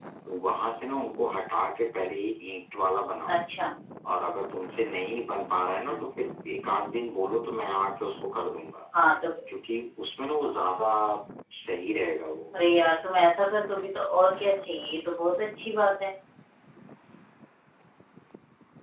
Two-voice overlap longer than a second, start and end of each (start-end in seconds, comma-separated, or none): none